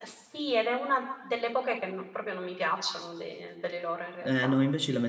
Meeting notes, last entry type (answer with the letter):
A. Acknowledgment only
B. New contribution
B